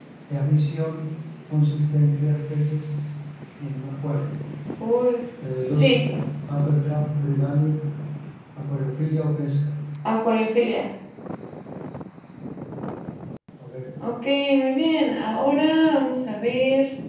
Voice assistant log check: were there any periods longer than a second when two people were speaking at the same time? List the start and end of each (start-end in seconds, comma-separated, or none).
none